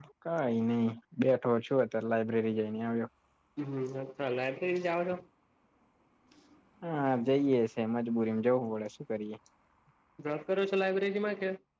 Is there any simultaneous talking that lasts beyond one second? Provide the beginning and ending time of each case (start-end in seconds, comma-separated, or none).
none